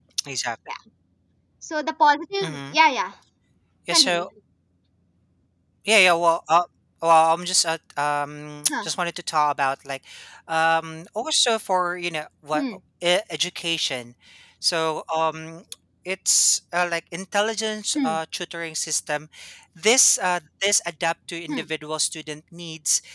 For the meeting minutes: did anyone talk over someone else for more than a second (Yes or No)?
No